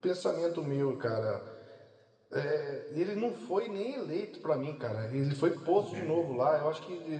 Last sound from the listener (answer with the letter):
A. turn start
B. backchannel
B